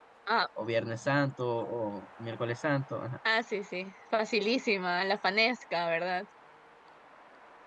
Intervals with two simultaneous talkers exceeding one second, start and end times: none

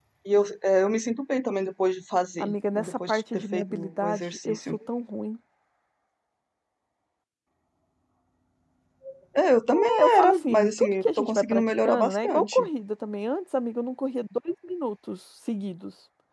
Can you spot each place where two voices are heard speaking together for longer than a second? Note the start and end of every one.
2.4-4.6, 10.0-12.7

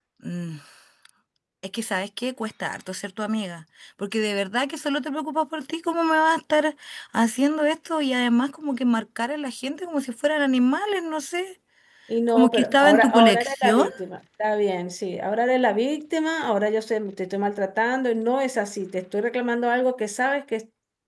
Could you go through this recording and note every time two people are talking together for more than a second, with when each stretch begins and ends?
12.3-13.9

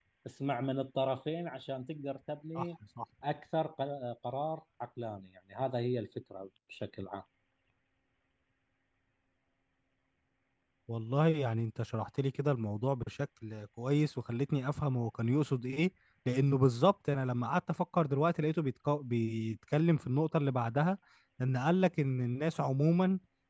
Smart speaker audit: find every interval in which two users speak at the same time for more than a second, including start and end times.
none

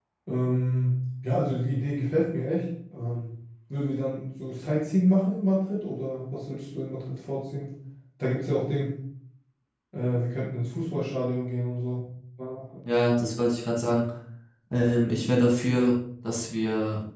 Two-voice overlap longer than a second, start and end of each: none

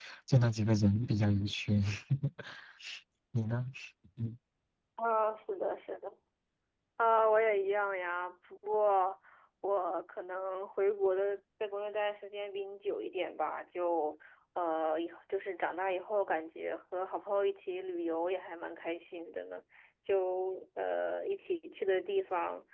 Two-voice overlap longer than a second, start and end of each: none

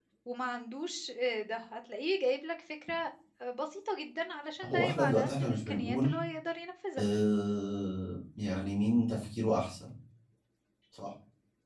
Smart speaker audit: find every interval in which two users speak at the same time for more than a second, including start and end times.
4.6-6.1

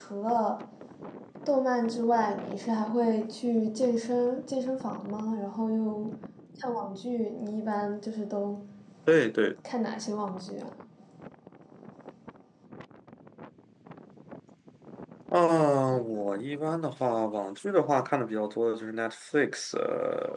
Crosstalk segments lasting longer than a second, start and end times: none

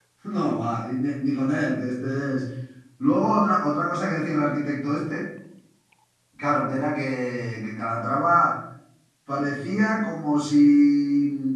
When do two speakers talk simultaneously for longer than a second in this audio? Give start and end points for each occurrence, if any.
none

